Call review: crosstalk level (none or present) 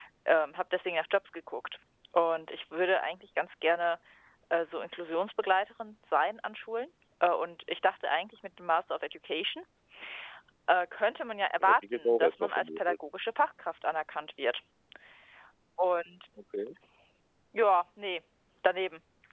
present